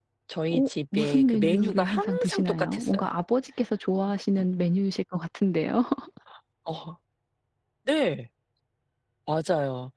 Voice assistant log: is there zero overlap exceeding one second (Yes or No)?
No